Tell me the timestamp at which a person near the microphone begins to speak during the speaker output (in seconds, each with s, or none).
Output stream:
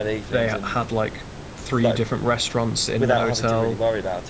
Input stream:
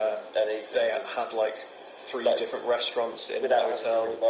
none